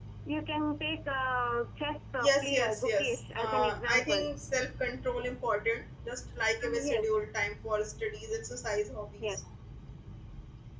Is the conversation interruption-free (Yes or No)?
No